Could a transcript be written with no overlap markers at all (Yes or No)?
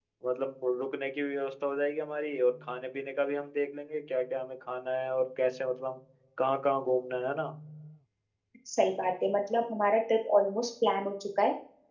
Yes